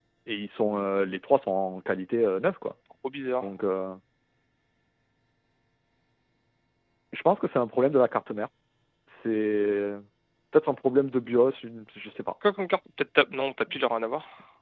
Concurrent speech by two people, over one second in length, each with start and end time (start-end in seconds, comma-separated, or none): none